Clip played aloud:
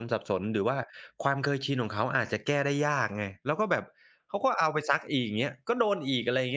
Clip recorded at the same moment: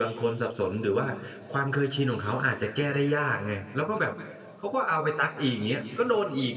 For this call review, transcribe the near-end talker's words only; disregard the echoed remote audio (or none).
none